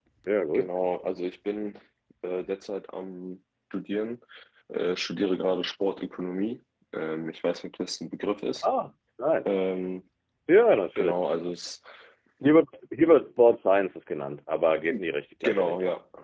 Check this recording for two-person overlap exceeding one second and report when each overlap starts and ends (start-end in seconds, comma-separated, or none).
none